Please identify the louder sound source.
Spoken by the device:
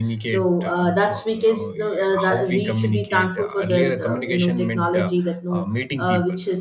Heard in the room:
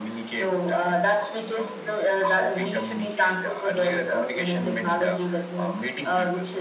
echo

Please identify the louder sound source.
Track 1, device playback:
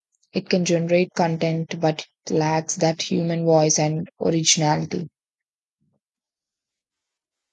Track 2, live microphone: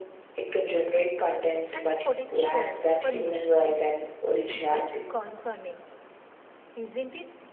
echo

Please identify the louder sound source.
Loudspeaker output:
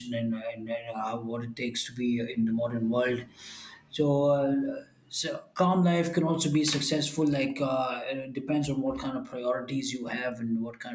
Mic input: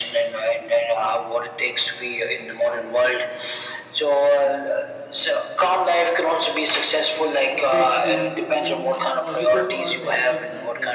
echo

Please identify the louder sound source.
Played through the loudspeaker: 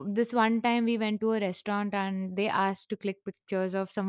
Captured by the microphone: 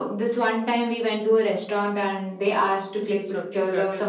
echo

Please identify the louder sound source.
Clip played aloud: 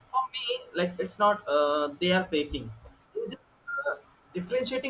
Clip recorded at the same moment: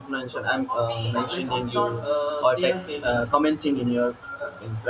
user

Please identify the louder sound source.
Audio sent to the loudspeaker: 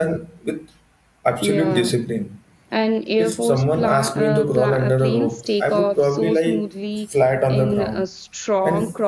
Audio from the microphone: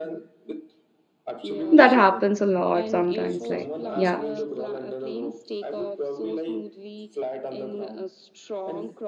user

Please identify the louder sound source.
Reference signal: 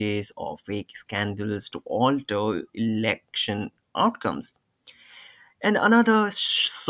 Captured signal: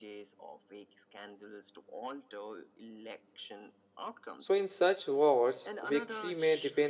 user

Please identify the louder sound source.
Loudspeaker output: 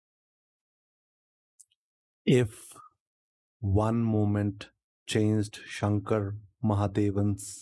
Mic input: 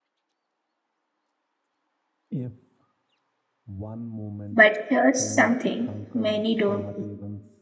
user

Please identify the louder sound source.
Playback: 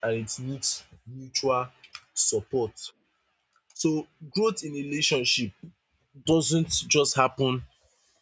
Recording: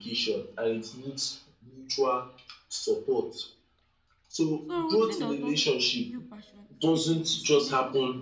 echo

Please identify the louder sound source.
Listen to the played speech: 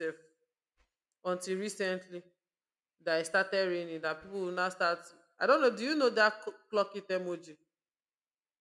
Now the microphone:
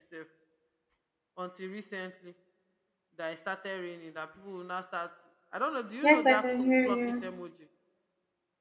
user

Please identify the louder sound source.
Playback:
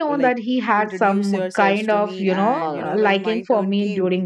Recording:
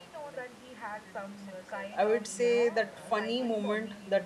user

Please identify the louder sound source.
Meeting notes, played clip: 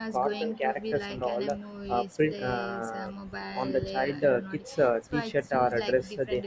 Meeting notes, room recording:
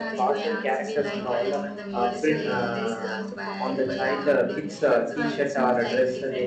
echo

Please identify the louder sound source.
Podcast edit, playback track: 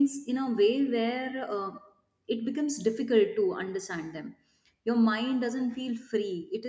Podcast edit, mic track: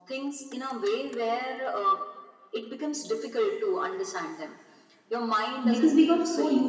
user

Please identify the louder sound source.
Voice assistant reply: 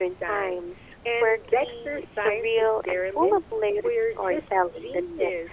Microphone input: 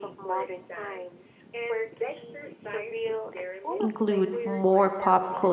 user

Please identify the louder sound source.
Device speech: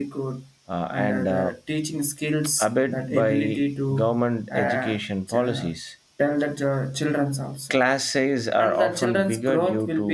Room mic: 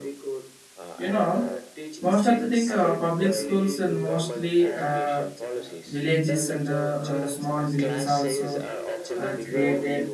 user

